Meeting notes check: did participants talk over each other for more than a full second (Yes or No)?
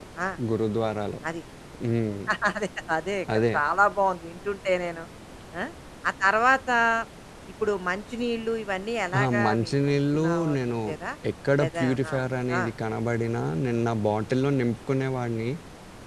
Yes